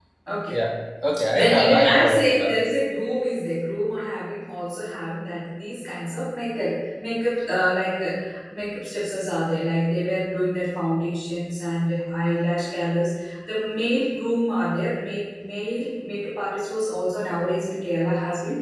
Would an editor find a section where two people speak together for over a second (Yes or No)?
Yes